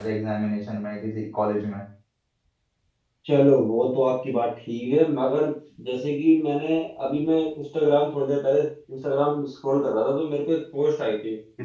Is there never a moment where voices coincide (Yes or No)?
Yes